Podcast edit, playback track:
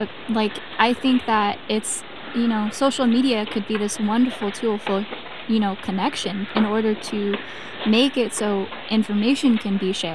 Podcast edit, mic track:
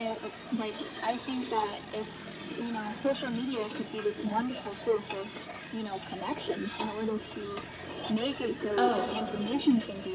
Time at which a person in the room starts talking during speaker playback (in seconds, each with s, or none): 8.8 s